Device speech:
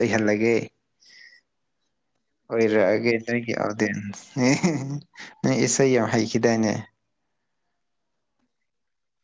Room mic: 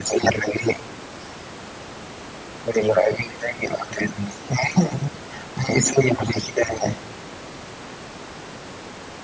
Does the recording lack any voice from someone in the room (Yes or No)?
Yes